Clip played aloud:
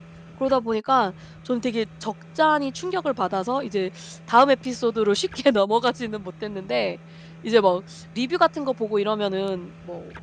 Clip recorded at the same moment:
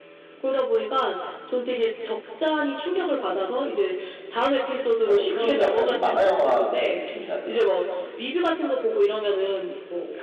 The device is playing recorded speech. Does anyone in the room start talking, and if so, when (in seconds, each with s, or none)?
5.0 s